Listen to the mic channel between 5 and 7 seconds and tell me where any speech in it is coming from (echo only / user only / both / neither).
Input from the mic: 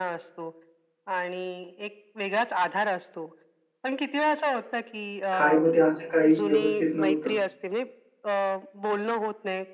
both